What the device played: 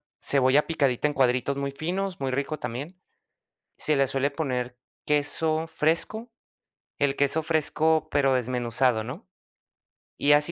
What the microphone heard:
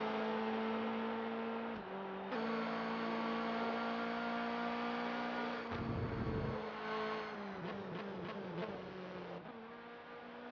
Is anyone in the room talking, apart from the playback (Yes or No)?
No